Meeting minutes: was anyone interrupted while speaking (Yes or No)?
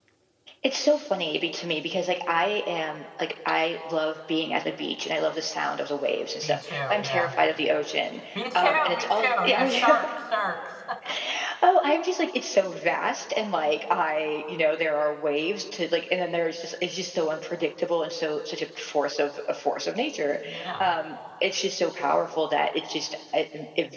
Yes